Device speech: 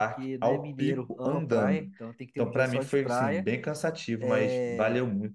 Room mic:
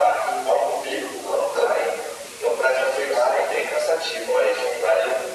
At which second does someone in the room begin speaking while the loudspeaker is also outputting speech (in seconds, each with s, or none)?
none